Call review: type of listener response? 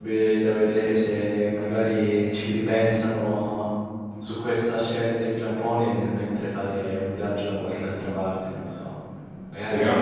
taking over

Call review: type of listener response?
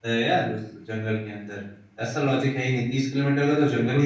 taking over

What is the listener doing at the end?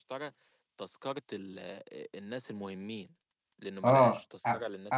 taking over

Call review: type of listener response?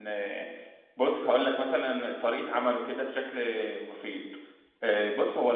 listening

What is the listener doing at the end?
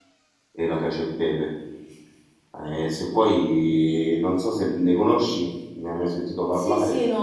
taking over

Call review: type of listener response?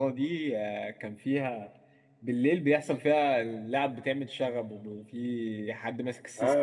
taking over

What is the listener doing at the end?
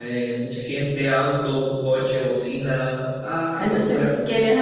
taking over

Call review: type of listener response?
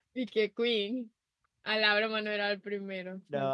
taking over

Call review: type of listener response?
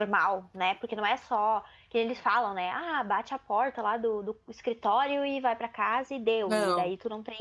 listening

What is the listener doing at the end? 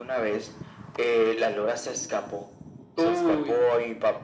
listening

